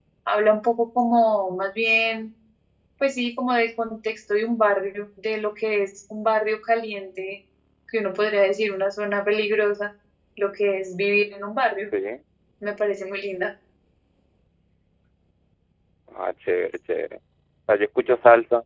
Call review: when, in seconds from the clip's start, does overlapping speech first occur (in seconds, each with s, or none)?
none